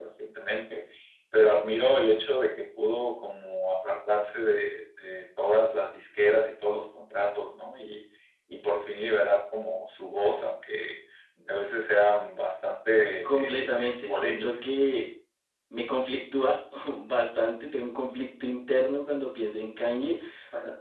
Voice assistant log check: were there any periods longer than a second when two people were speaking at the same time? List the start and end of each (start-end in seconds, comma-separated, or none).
13.2-14.7